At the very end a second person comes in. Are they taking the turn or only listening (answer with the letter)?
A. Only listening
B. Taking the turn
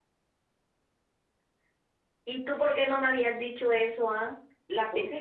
A